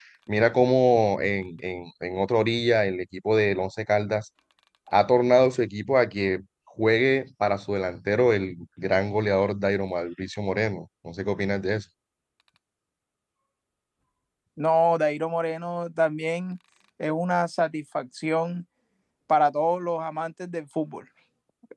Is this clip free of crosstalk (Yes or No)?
Yes